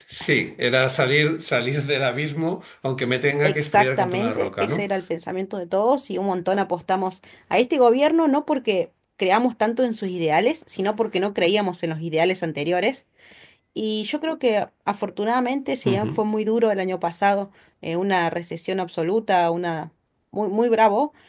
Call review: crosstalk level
present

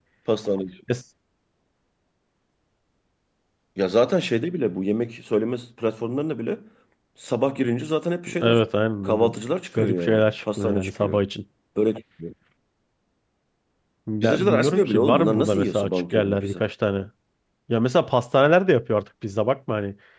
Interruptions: present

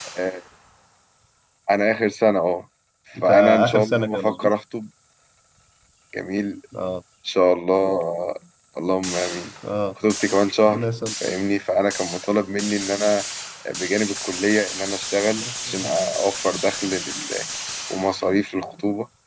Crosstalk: present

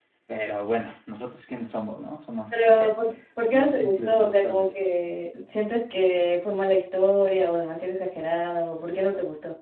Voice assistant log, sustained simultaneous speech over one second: present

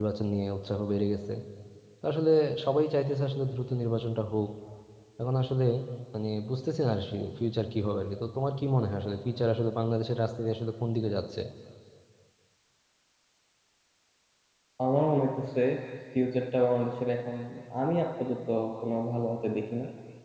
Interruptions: none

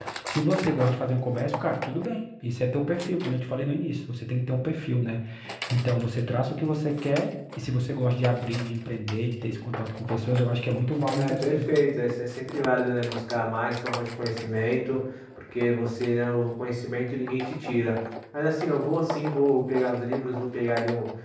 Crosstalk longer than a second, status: none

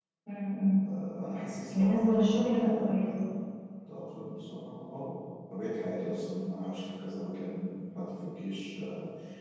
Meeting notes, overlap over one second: present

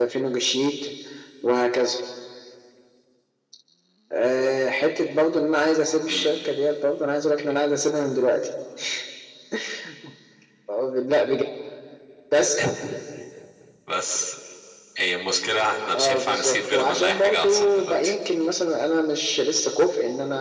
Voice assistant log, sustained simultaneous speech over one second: present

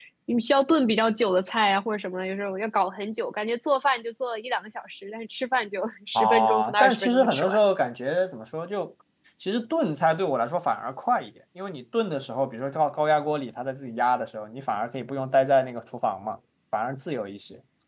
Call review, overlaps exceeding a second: present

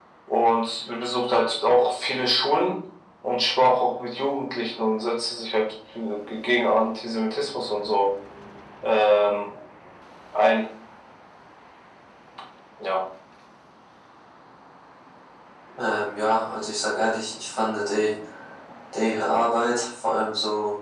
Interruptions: none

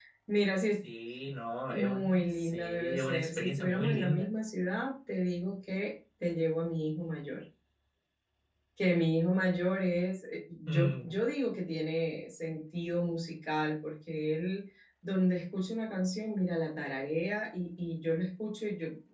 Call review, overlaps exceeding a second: present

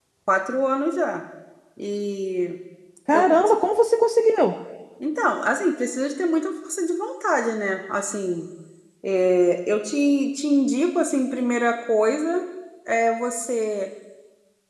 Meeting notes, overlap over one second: none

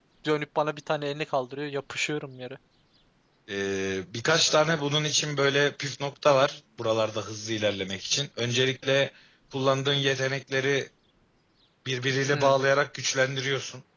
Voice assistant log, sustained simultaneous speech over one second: none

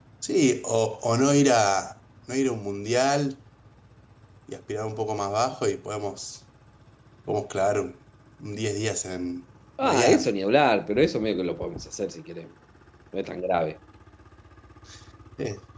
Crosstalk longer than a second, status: none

